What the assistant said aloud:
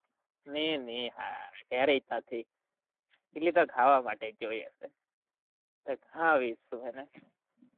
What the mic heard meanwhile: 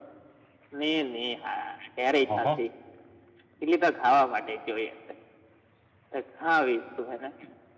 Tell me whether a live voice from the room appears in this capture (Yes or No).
Yes